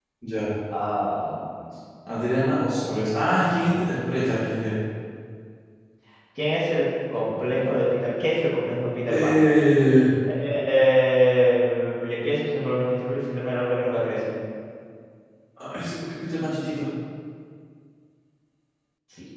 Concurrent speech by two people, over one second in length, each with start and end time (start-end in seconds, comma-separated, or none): none